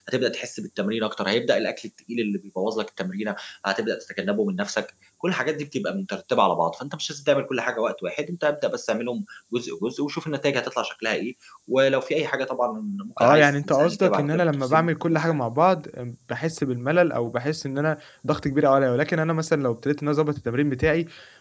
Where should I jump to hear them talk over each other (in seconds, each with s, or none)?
13.2 s